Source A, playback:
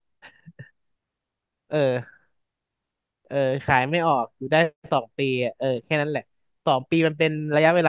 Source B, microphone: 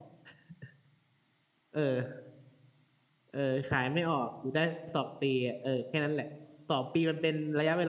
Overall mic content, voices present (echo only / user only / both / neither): echo only